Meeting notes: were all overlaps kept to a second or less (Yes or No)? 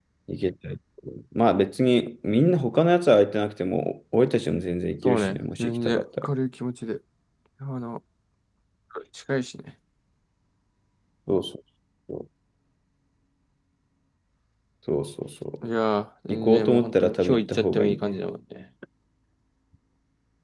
No